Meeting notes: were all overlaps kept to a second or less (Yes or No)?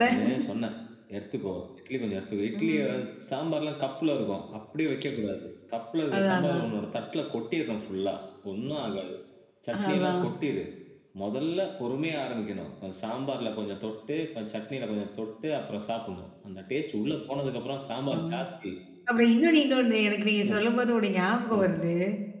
Yes